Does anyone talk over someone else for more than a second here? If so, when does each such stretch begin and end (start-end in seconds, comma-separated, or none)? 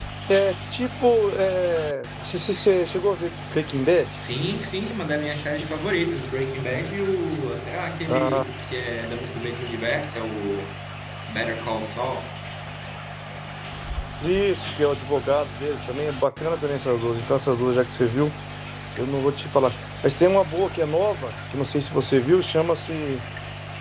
none